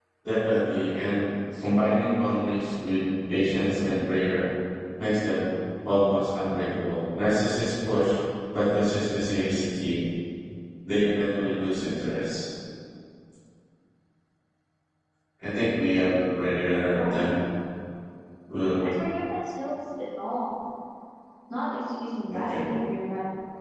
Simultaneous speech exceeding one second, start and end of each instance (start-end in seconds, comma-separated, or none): none